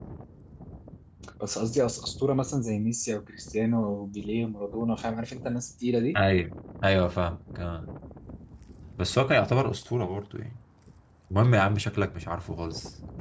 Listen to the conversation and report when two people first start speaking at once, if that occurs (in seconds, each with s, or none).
none